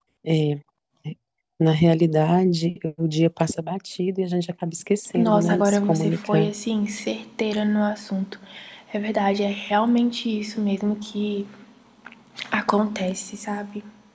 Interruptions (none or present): present